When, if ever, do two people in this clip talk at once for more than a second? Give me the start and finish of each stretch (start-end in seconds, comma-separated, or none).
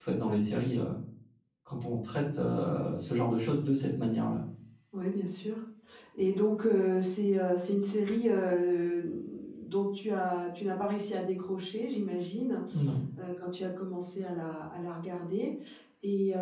none